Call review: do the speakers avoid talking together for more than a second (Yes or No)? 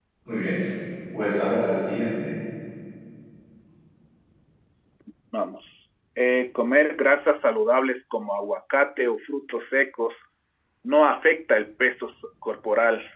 Yes